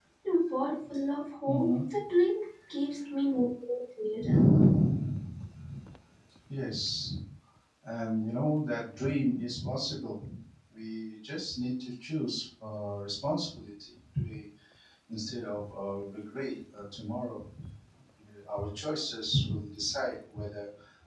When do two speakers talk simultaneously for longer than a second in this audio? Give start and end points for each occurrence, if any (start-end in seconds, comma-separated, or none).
none